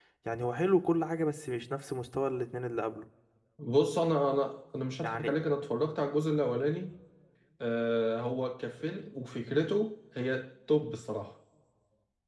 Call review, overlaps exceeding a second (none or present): none